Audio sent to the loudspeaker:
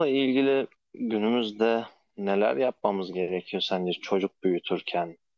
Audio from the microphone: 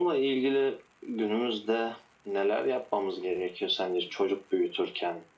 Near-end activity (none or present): none